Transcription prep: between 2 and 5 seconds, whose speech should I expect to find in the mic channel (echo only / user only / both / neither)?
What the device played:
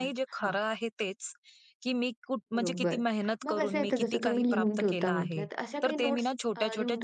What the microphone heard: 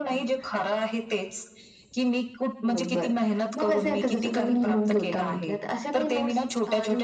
echo only